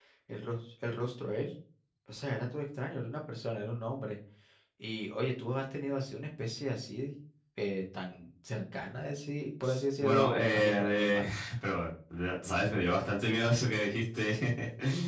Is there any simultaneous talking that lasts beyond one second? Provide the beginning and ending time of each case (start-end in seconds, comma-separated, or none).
10.0-11.3